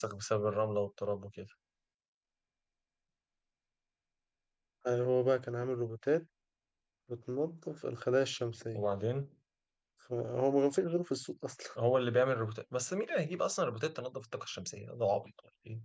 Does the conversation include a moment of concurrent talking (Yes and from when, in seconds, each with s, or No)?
No